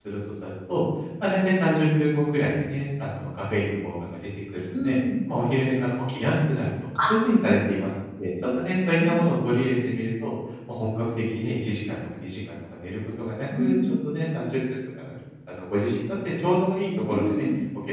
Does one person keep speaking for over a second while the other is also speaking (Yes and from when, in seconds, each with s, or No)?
No